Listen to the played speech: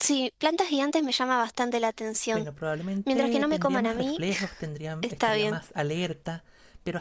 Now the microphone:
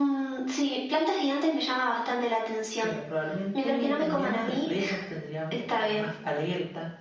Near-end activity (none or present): none